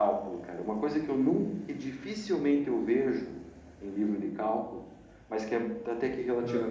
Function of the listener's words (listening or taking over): listening